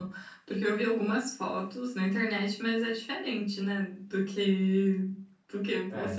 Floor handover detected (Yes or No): No